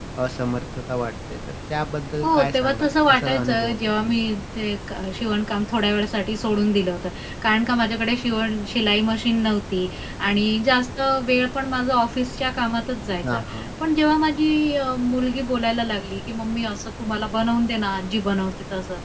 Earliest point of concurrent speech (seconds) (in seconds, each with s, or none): 2.2 s